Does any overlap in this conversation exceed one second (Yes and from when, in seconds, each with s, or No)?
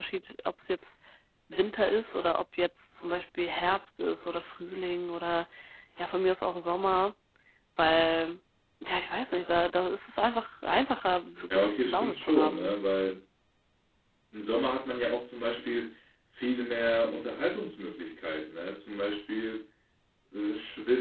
Yes, from 11.5 s